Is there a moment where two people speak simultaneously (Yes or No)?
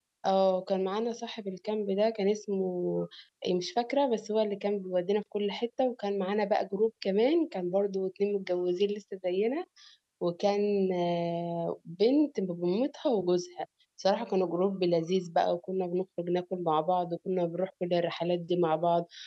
No